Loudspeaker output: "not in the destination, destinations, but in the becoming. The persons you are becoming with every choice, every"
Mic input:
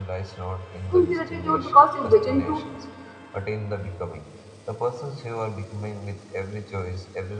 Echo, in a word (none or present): present